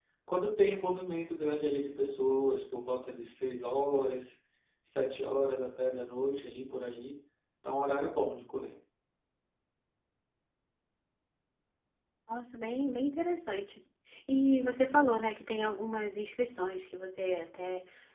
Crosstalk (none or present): none